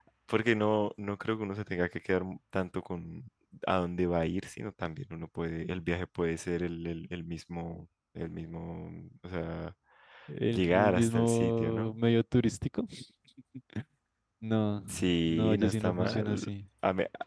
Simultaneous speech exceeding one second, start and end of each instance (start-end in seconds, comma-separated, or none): 10.5-12.0, 15.2-16.5